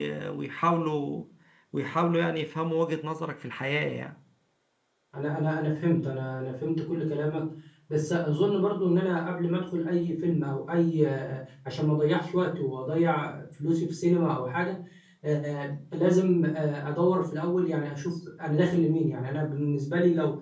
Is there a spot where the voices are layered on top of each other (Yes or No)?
No